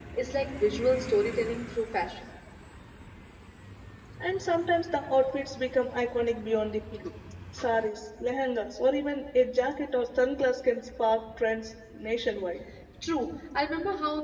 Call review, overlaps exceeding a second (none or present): none